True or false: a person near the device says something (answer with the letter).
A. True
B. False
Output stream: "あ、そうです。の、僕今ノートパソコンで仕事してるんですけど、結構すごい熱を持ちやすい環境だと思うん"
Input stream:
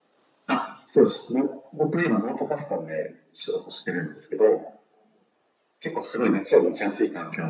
B